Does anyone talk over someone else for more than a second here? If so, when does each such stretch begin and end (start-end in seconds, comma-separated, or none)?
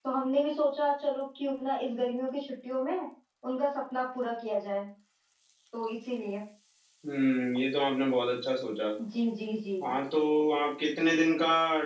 none